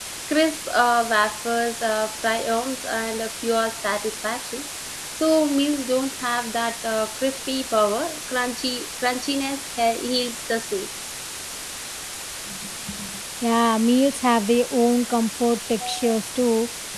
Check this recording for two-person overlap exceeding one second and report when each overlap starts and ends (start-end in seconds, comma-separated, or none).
none